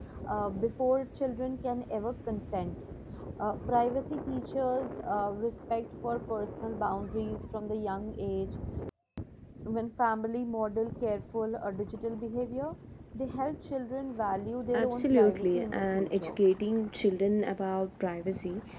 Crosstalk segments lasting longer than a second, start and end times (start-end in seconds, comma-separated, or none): 14.7-16.3